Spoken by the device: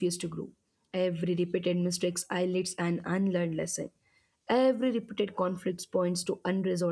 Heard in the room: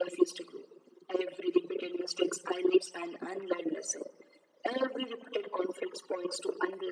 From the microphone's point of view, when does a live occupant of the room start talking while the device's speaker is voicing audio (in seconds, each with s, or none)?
none